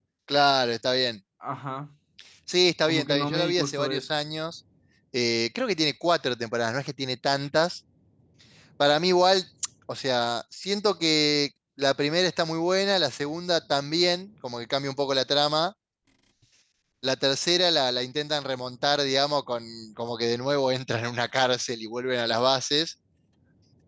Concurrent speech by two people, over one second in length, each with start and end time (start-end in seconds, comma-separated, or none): 2.9-4.1